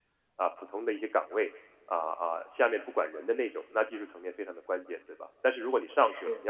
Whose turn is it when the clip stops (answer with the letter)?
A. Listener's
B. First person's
B